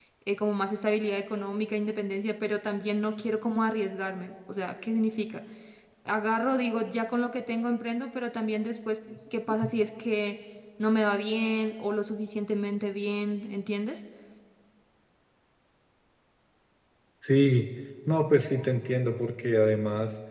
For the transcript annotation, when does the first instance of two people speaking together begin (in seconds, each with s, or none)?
none